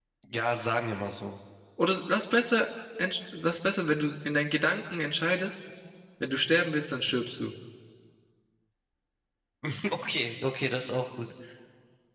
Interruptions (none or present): none